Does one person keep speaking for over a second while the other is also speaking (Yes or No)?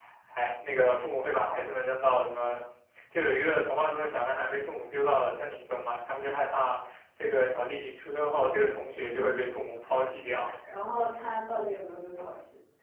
No